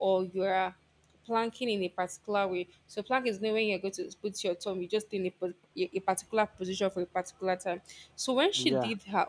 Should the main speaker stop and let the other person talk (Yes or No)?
No